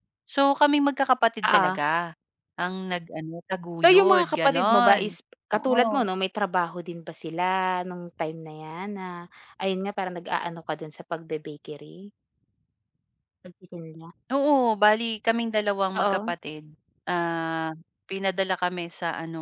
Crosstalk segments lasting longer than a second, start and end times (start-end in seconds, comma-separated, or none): 3.8-5.1